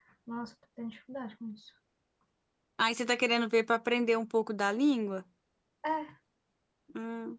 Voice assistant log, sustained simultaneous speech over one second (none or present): none